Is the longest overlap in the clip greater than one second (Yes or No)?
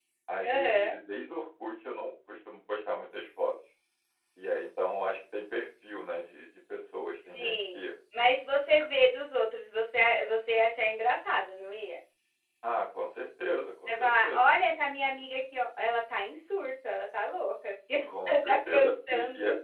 Yes